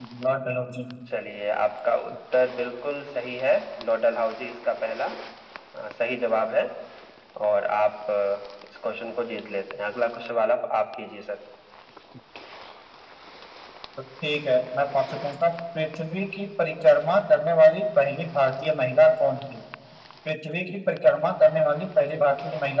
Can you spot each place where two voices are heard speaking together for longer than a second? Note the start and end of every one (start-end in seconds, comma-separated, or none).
none